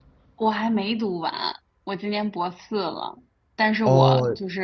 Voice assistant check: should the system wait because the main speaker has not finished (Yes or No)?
Yes